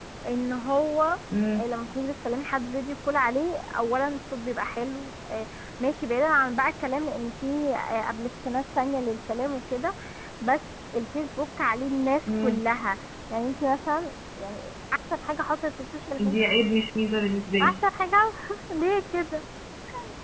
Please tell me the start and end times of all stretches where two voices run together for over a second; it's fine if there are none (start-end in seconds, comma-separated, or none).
none